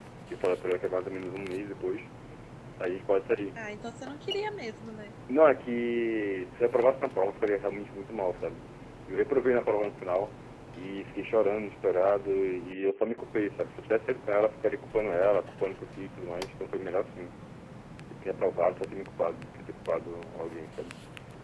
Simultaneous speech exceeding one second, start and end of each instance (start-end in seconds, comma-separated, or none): none